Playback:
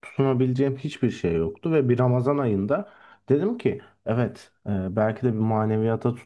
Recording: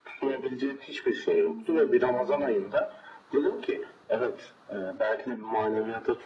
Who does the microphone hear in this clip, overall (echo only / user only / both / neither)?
both